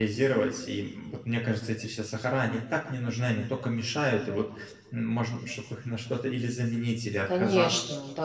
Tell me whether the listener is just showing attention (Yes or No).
No